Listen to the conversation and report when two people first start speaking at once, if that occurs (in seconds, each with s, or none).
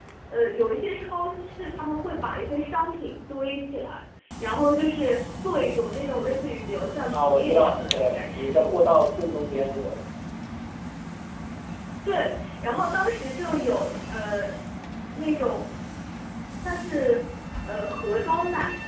7.1 s